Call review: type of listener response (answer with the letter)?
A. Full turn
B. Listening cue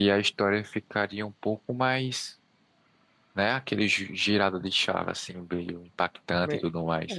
A